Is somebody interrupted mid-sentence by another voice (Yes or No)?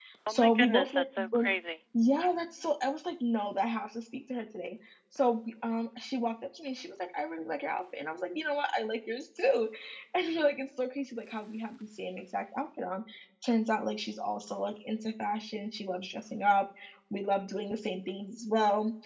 Yes